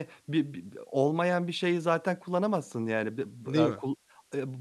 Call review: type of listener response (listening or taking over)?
listening